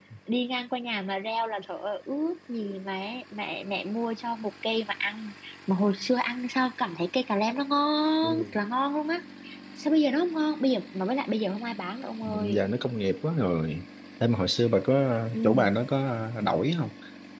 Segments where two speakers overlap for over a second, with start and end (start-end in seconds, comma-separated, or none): none